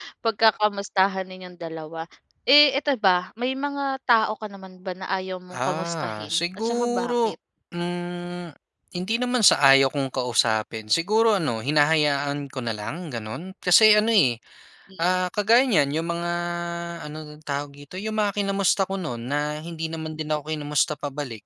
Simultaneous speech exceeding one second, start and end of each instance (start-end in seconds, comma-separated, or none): 5.5-7.3